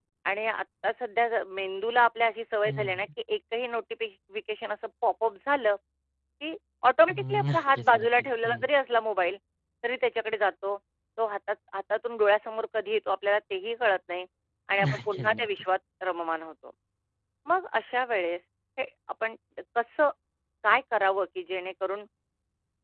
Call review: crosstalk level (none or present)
present